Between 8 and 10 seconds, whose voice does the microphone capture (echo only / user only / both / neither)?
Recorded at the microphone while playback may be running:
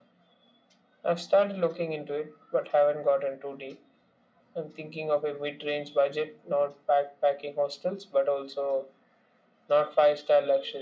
echo only